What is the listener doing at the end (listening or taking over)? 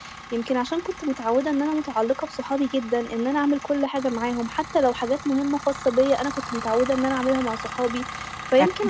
listening